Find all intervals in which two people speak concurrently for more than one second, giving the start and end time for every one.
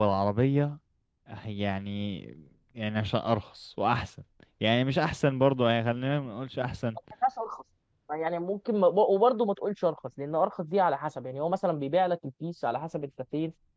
none

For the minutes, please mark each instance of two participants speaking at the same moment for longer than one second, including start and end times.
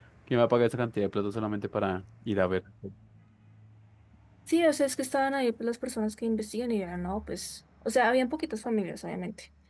none

